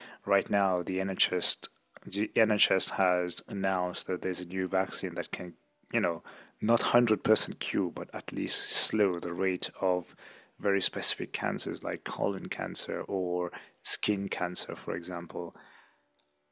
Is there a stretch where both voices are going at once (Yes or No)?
No